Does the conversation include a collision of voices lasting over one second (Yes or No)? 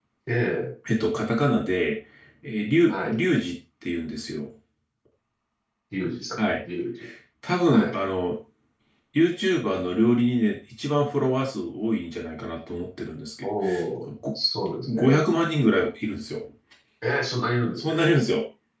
No